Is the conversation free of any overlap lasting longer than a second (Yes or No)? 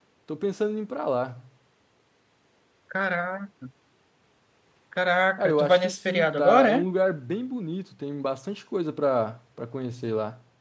No